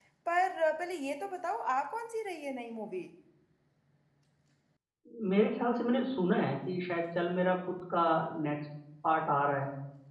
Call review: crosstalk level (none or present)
none